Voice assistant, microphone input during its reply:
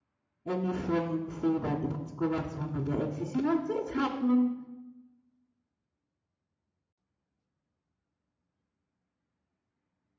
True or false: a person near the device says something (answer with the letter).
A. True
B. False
A